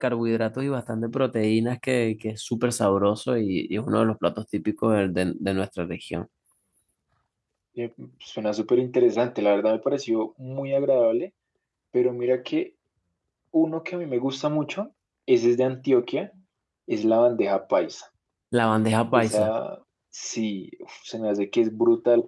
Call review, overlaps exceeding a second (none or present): none